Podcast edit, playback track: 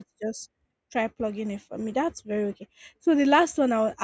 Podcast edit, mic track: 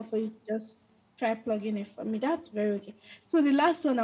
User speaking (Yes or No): No